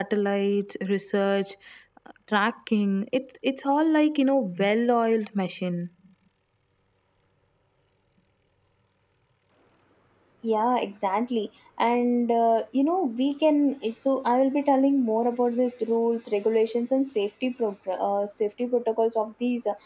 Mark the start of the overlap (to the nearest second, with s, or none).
none